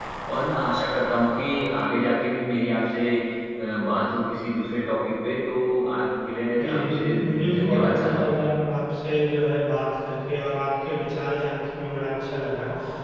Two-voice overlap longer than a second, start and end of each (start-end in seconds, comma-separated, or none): 6.6-8.5